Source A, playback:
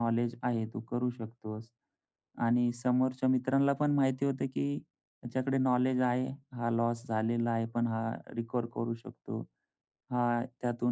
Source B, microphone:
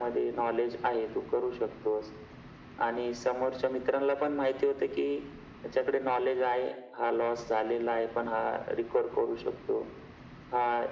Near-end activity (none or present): none